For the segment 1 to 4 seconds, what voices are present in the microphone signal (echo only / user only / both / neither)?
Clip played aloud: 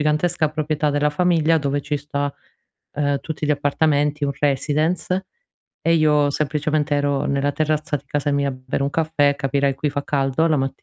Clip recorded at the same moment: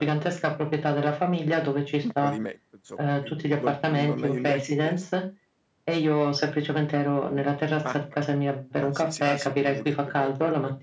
both